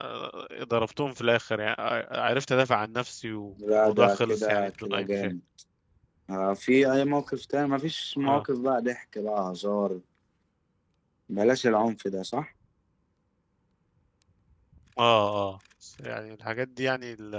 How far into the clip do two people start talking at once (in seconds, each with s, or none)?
3.8 s